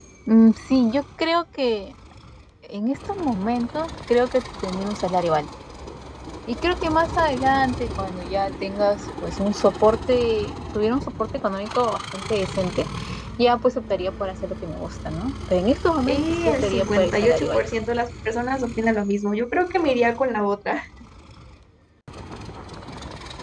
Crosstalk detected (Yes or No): Yes